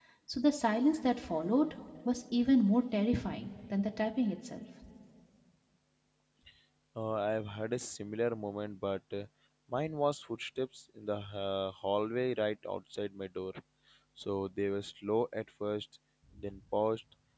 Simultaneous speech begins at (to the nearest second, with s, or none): none